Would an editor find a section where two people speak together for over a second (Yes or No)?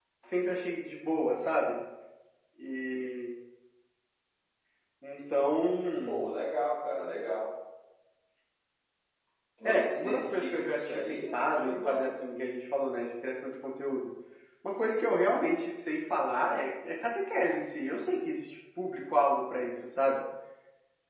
Yes